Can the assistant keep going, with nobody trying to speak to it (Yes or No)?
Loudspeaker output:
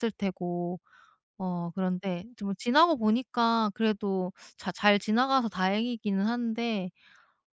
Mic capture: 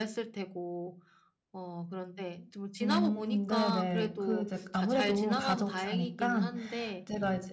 No